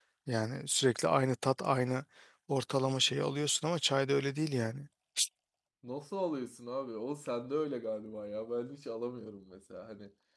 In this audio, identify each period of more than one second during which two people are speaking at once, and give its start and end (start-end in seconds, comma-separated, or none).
none